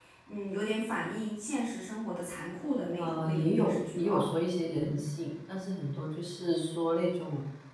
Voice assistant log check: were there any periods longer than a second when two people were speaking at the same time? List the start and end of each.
3.0-4.3

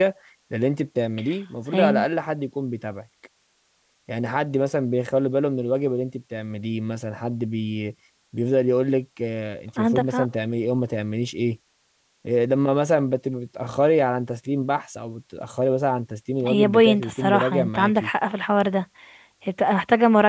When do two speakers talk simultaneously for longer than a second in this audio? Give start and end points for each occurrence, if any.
16.5-18.1

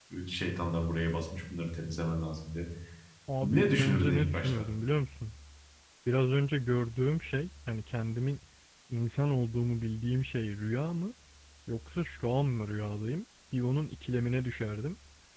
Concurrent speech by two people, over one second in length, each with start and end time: 3.4-4.7

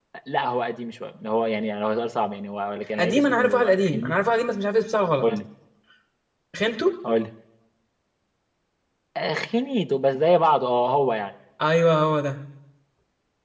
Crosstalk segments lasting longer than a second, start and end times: 3.0-4.2

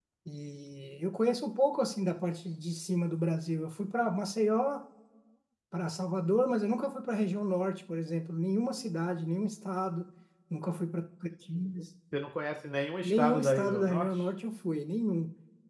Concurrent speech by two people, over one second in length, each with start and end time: 13.0-14.2

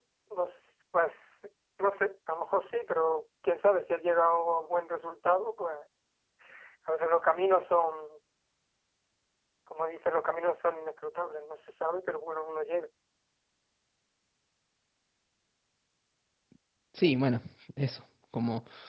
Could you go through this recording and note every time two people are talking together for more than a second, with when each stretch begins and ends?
none

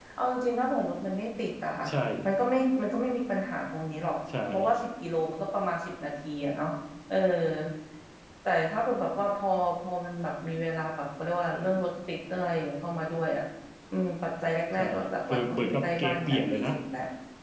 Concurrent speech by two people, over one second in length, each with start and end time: 14.7-16.7

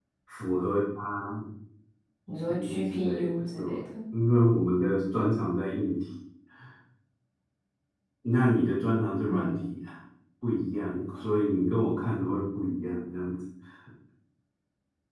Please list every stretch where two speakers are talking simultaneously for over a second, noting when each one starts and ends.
2.3-3.6

